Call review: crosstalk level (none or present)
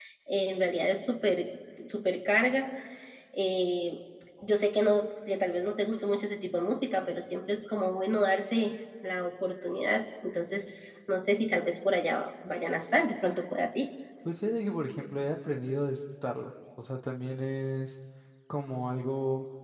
none